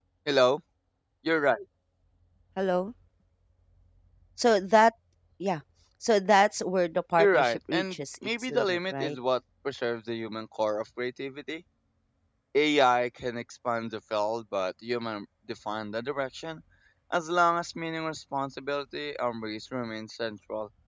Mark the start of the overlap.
7 s

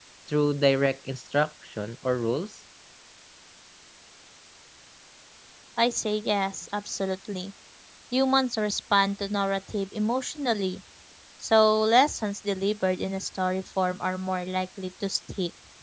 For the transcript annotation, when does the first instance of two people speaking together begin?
none

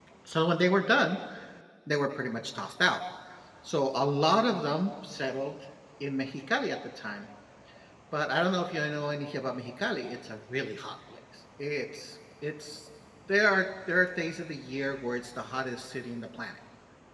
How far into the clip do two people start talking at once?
none

